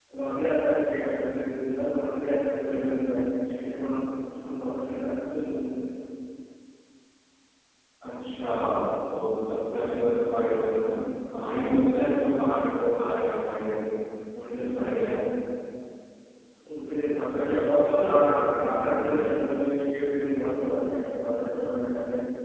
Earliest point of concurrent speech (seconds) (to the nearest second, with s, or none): 17 s